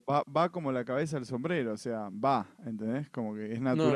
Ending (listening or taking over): taking over